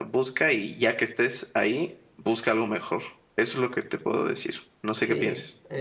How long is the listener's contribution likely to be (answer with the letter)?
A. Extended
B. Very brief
A